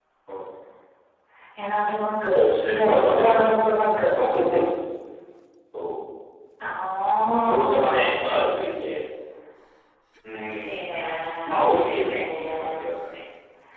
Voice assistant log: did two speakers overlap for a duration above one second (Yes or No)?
Yes